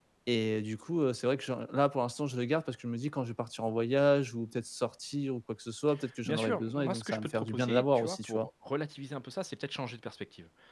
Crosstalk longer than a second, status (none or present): present